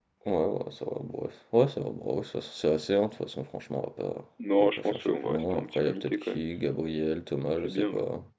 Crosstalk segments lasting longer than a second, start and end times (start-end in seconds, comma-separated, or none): 4.6-6.5